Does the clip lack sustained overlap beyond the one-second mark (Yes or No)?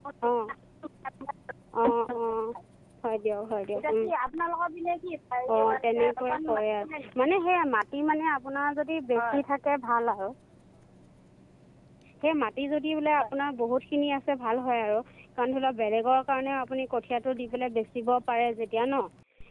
No